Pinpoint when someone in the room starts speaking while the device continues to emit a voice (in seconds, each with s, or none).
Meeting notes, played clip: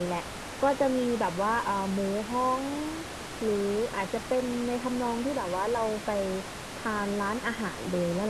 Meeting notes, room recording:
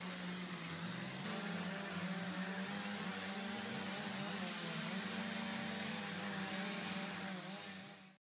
none